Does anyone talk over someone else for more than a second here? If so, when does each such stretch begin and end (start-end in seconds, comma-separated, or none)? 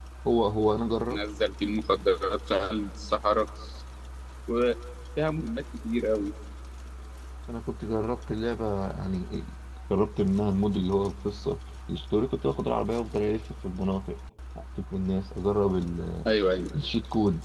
none